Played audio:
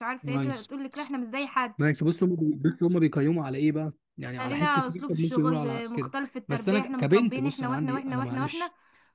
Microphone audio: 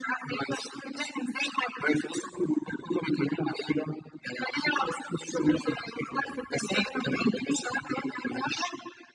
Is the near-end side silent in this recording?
Yes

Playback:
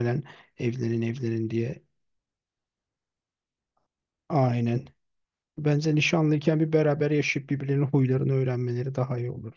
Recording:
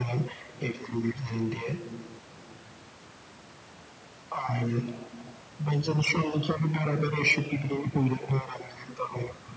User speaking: No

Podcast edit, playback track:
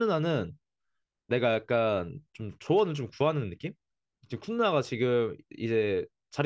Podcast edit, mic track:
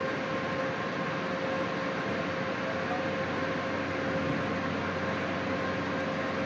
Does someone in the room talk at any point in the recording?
No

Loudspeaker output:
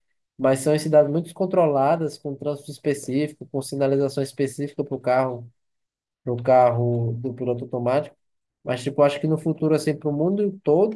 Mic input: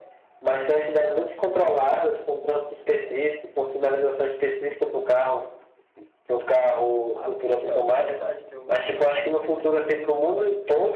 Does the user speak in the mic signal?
Yes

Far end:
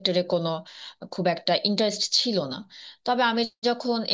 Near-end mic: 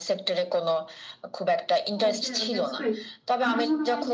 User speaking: Yes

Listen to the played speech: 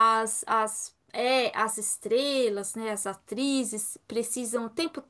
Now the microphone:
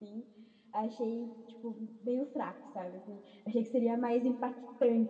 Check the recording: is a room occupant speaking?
Yes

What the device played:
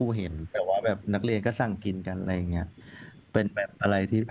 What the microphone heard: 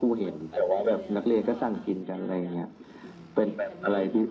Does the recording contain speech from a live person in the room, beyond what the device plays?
Yes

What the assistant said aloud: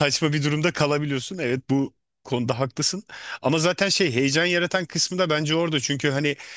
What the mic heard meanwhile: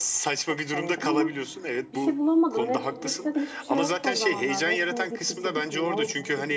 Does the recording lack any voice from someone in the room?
No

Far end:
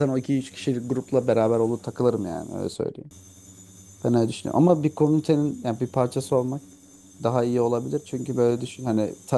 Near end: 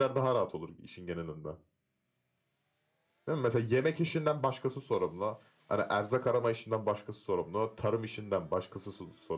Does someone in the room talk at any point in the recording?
Yes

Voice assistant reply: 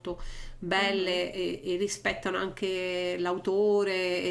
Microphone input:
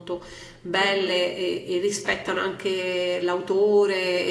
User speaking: No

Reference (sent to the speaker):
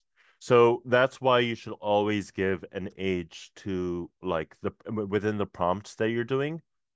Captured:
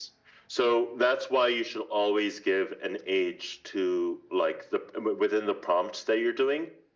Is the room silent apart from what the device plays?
Yes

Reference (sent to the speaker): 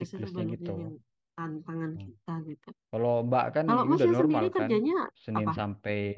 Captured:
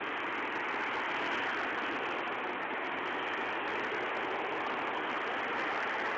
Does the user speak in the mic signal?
No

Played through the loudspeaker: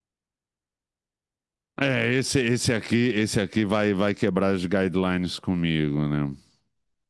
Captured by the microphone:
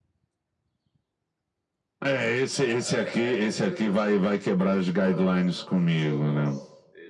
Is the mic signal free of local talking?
No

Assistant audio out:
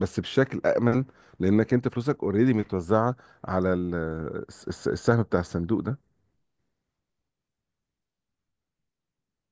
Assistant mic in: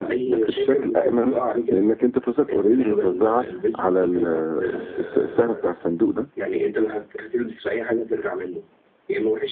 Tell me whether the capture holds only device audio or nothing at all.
No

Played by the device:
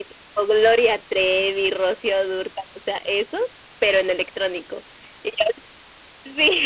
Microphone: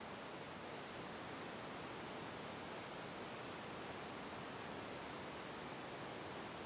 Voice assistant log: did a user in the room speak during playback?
No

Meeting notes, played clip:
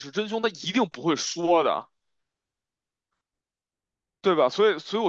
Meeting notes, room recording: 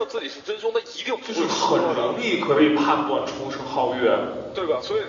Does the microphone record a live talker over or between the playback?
Yes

